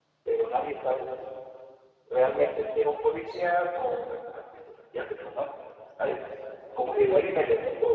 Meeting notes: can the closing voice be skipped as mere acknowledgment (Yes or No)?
Yes